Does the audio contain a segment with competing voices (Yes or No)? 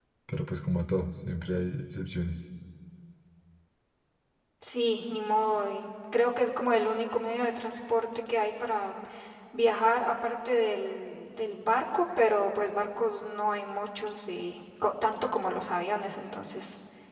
No